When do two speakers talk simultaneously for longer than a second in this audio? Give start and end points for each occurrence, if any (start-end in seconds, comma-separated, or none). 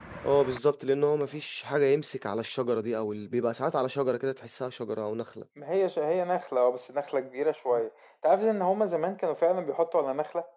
none